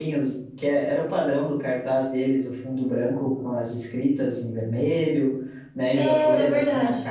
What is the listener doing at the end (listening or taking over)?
listening